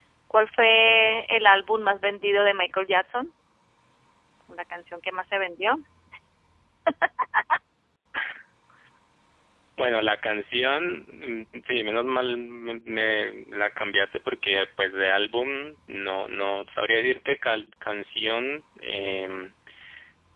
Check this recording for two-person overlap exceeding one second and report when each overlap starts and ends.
none

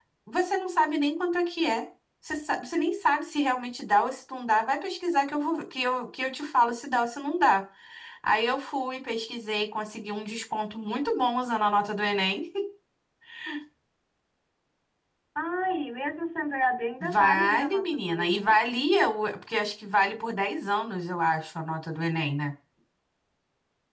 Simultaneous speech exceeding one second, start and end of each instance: 17.0-18.5

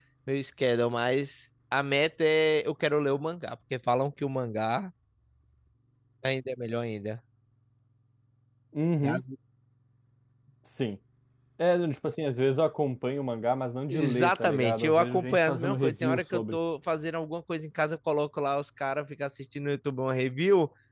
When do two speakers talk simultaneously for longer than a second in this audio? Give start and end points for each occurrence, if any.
13.9-16.6

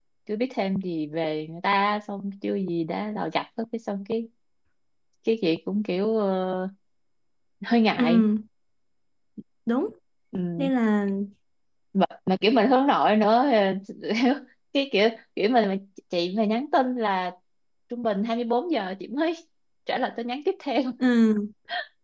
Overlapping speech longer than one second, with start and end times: none

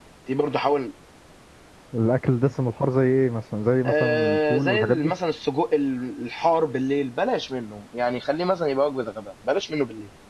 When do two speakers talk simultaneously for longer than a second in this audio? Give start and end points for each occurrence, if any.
3.8-5.1

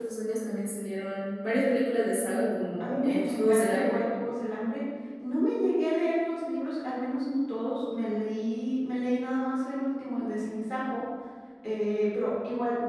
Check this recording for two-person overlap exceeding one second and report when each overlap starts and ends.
2.2-4.0

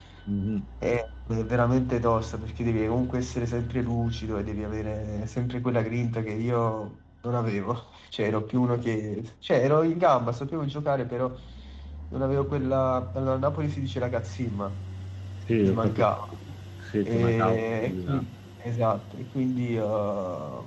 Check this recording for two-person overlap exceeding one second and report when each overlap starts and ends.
17.1-18.3

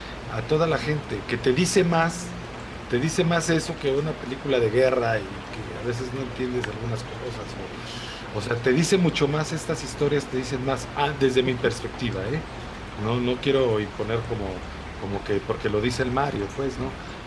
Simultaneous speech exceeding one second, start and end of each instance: none

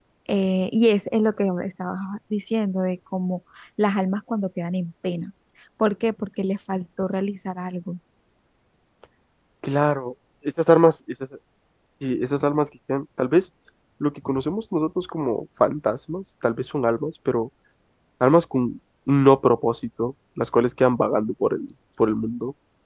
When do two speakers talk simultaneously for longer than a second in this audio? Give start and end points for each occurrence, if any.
none

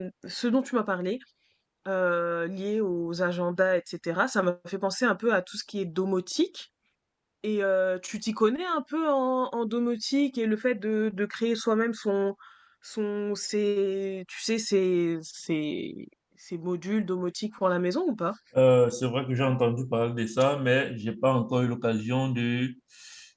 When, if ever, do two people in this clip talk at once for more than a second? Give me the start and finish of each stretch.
none

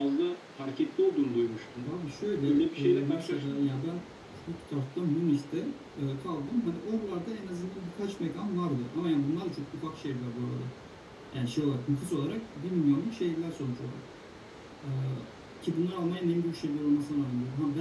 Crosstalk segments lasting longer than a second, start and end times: 2.5-3.7

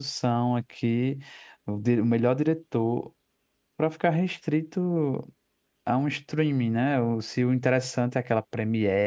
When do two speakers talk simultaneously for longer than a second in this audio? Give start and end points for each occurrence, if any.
none

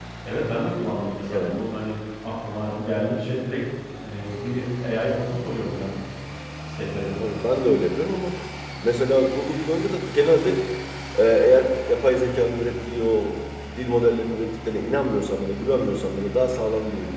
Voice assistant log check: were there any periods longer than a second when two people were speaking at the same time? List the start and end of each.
none

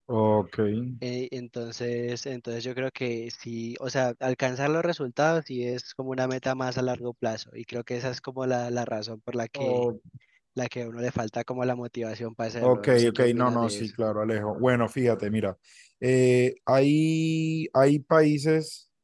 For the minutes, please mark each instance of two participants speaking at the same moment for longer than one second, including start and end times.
12.6-13.9

